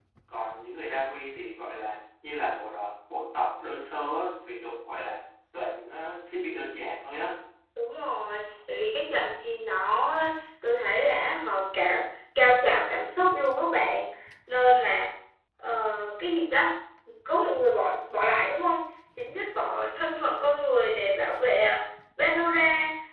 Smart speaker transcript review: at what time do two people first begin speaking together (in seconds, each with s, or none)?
none